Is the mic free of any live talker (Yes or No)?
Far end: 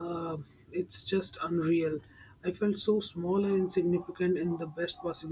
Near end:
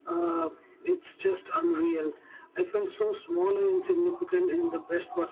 Yes